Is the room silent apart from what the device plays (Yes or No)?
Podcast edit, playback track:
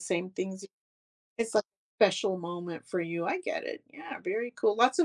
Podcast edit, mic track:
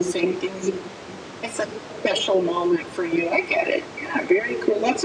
Yes